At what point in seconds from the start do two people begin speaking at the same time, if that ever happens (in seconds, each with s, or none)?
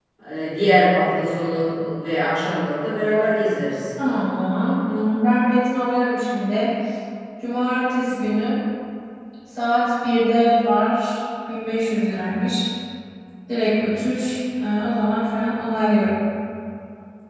none